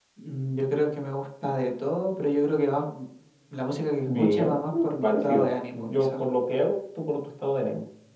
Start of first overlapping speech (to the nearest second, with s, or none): 4 s